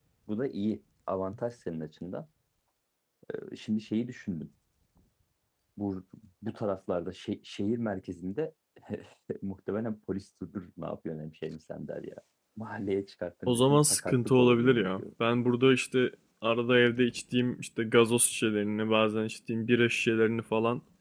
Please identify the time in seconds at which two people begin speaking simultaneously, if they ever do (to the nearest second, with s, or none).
13 s